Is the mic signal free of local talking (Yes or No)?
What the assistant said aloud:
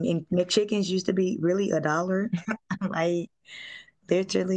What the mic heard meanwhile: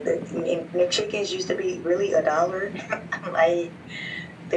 Yes